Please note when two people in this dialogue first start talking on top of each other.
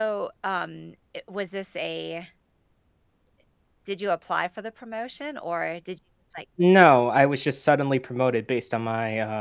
none

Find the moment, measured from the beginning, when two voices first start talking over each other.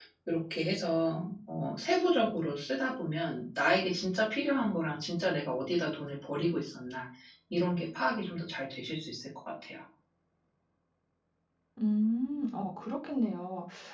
none

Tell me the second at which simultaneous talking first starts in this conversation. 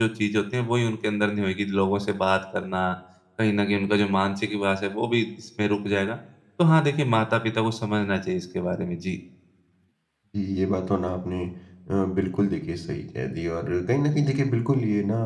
none

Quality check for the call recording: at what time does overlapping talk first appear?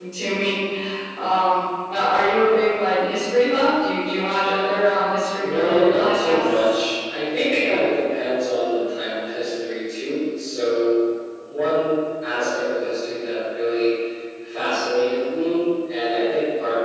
5.4 s

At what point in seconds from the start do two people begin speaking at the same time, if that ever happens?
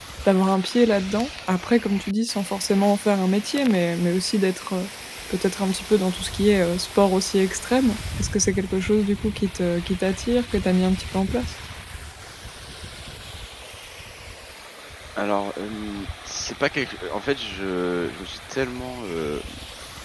none

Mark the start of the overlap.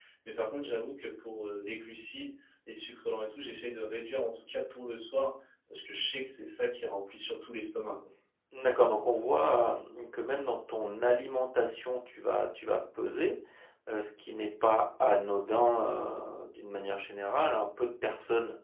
none

